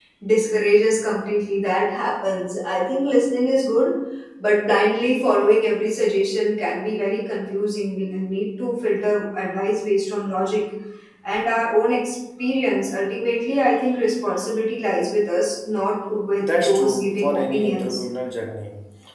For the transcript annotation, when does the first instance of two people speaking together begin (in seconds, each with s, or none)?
16.4 s